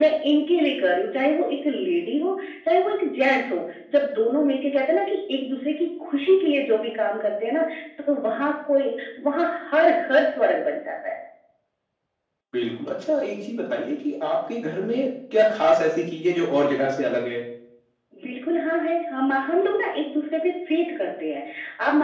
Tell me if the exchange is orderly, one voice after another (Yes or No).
Yes